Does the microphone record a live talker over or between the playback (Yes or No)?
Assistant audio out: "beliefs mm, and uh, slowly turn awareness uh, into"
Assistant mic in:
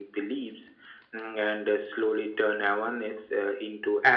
No